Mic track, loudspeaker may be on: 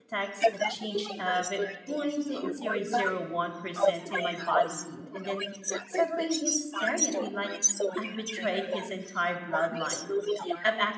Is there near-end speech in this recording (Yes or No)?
Yes